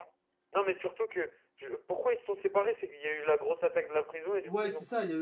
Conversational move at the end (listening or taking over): taking over